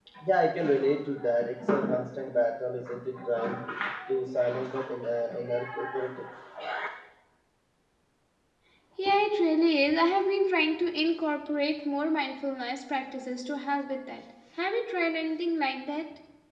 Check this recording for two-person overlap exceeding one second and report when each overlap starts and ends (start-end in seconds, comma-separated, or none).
none